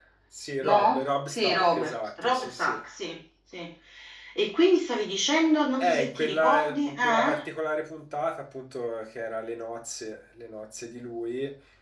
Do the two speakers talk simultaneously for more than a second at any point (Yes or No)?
Yes